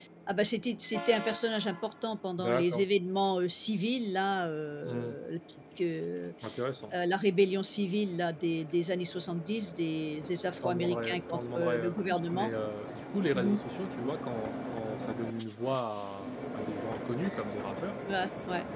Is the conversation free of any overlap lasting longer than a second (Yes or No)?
No